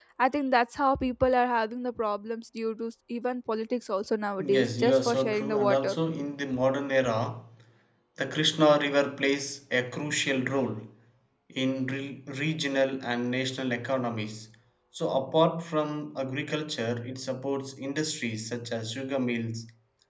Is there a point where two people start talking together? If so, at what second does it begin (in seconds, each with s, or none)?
4.4 s